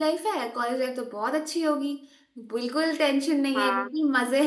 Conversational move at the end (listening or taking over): listening